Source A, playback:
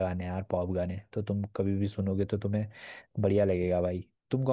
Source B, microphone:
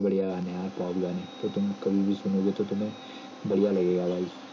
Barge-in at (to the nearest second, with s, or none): none